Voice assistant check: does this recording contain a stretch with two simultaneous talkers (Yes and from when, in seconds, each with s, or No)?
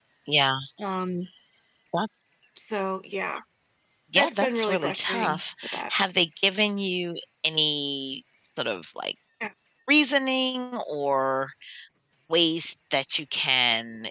Yes, from 4.2 s